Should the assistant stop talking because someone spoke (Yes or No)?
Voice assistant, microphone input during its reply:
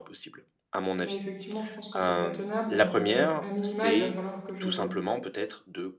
Yes